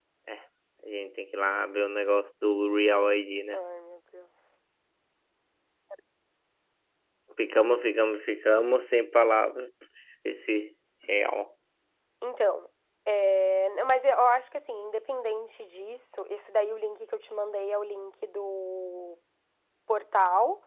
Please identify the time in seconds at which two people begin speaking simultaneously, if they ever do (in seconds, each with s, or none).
none